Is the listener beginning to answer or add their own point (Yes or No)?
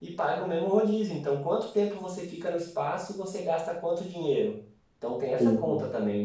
No